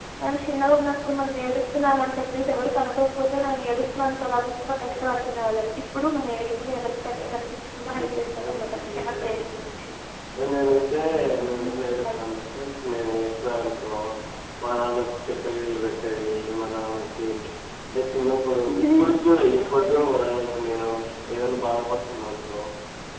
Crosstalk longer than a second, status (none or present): present